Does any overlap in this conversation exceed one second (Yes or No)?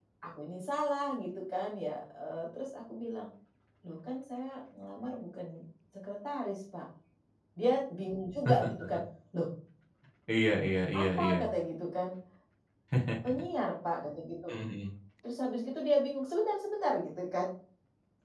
No